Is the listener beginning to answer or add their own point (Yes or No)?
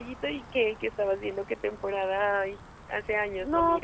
Yes